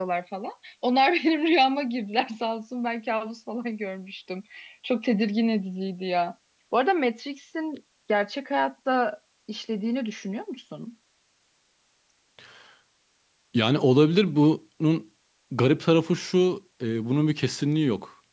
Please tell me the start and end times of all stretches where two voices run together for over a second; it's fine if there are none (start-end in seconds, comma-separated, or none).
none